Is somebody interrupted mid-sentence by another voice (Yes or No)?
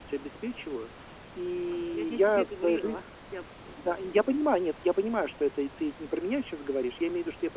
Yes